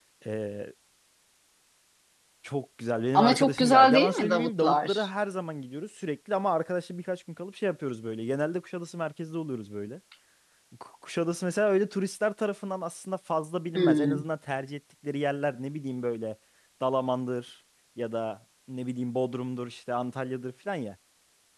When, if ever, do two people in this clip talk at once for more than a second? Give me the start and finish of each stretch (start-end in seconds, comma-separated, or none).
3.1-5.1